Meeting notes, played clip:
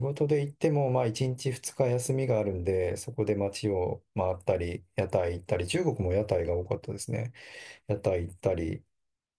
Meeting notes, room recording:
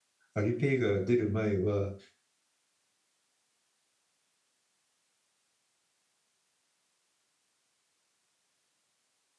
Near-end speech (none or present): present